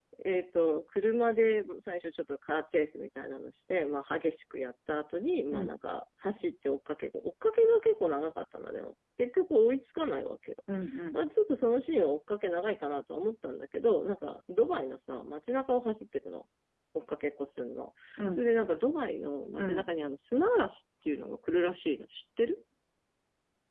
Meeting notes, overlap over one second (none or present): none